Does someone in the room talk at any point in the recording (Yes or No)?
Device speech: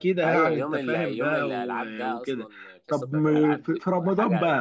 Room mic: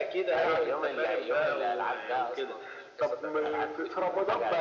No